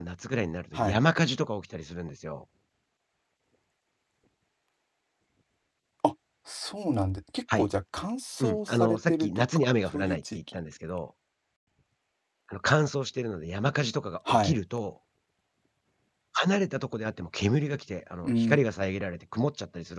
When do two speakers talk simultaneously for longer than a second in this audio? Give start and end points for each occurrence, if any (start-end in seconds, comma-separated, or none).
8.4-10.6